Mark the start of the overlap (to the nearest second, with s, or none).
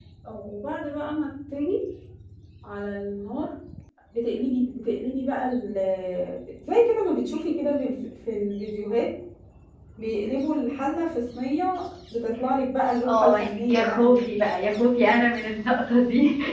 13 s